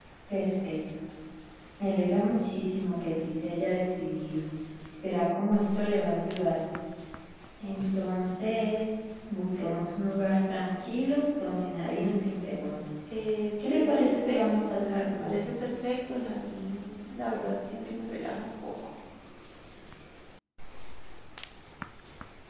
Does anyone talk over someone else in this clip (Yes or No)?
Yes